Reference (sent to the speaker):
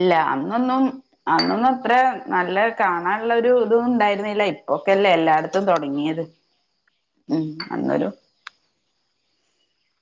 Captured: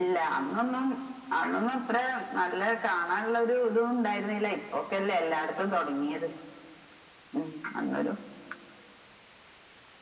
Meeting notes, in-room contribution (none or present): none